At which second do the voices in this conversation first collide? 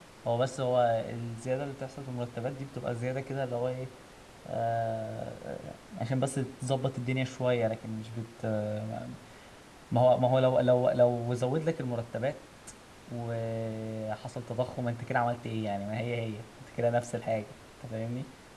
none

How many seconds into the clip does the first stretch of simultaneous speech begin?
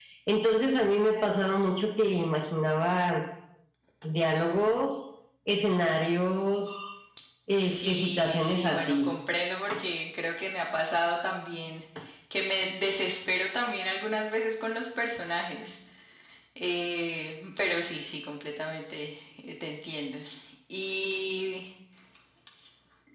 8 s

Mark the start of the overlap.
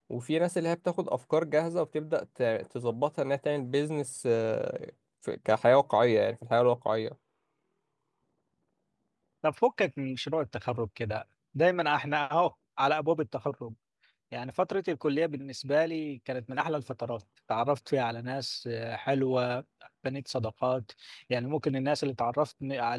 none

